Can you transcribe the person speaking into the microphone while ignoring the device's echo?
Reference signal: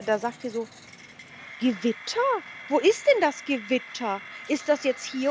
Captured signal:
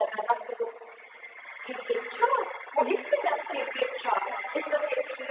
Ja.

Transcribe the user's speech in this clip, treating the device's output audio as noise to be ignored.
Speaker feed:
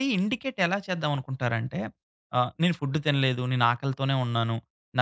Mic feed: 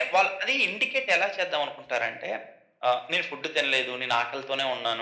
none

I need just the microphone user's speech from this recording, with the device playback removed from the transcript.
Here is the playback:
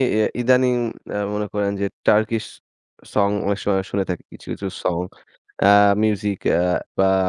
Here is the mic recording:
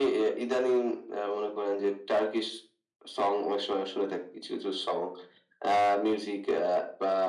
none

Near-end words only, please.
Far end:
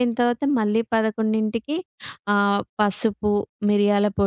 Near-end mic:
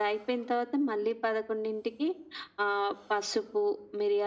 none

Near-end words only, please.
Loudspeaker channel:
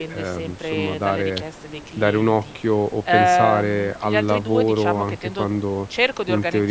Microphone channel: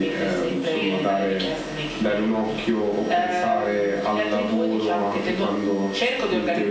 none

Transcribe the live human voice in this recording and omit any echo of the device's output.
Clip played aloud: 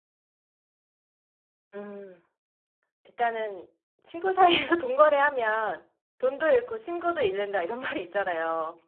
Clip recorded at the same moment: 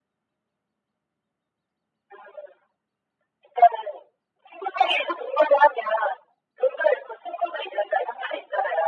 none

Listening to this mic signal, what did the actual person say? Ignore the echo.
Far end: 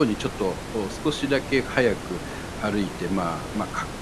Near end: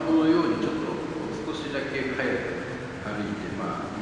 none

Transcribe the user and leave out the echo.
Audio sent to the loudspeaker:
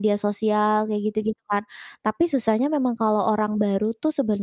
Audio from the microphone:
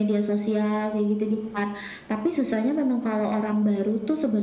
none

